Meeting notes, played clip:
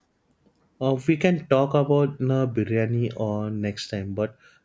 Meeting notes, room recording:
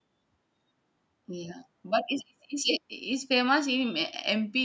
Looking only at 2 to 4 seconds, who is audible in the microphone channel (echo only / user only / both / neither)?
user only